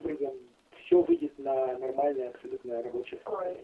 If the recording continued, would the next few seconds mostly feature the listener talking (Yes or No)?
Yes